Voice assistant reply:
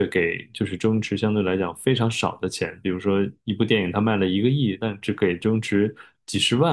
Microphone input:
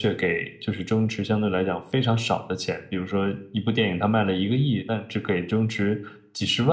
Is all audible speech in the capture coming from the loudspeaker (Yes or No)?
Yes